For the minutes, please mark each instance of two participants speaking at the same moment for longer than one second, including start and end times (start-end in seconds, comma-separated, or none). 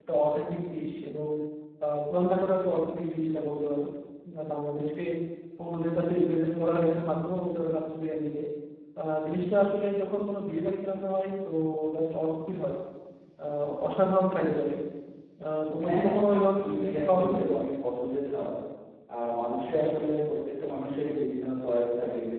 15.8-17.4